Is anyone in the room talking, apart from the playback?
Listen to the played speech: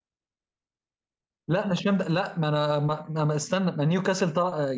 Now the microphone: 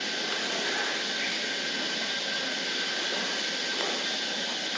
No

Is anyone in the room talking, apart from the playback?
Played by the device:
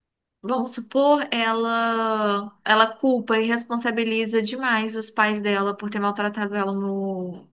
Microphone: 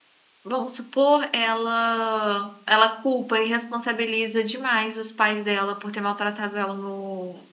No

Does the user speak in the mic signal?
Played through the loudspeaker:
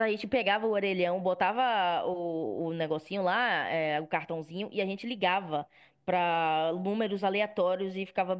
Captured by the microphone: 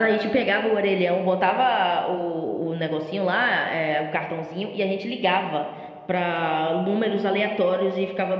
No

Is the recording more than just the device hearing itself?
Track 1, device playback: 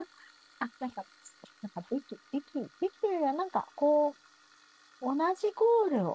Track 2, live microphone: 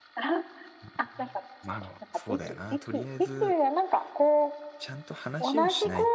Yes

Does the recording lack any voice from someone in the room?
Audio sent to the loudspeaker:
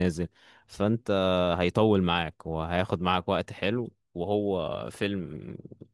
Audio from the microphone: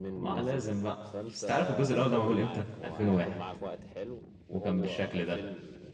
No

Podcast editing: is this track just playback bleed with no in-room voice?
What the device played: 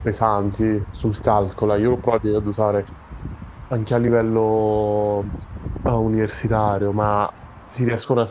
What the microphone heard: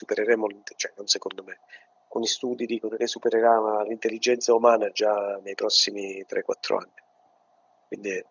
No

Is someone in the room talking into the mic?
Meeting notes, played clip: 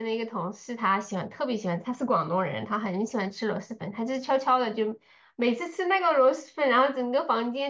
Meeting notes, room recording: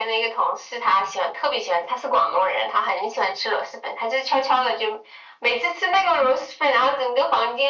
No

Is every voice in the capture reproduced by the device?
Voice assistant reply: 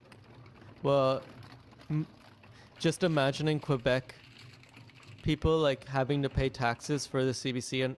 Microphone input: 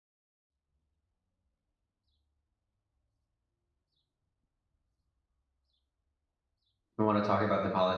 No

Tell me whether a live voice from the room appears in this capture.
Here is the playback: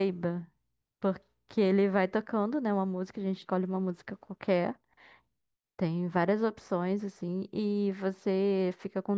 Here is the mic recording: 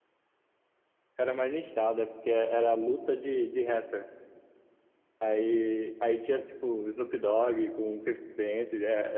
Yes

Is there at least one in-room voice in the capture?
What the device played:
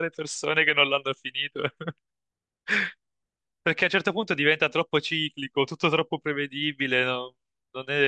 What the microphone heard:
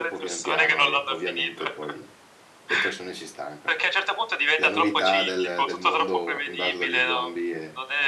Yes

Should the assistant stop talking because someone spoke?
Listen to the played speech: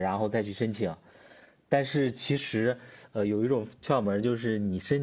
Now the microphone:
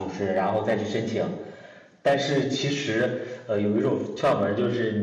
No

